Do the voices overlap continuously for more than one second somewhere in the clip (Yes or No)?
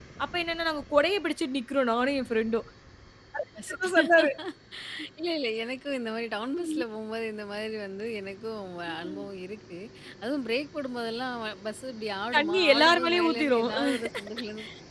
Yes